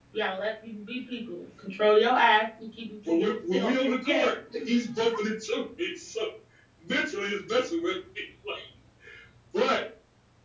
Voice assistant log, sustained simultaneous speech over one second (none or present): present